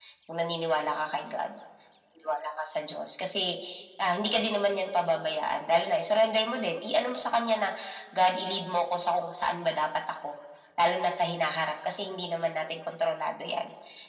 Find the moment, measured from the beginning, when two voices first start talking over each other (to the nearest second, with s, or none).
none